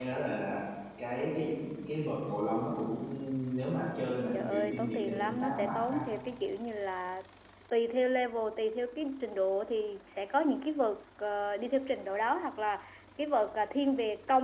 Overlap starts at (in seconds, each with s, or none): 4.4 s